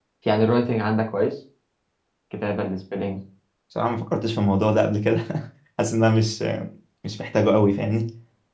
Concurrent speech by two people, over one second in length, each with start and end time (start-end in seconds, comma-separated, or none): none